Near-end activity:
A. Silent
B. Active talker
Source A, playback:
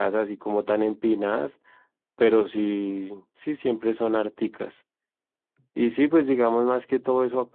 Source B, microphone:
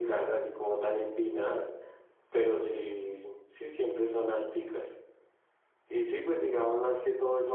A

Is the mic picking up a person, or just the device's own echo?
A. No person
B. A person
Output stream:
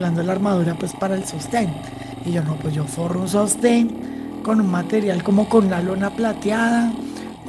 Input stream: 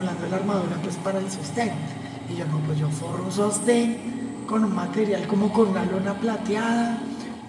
A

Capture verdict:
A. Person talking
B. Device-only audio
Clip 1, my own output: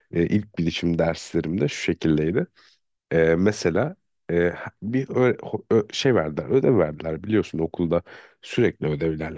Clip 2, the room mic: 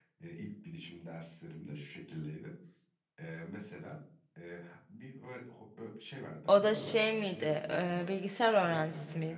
A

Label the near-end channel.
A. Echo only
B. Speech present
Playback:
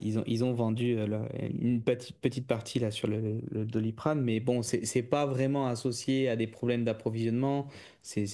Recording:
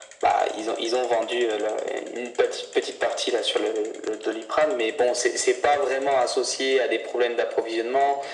A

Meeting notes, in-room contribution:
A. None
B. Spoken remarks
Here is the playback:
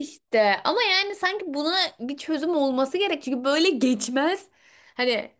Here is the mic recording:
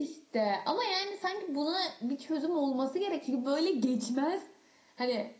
A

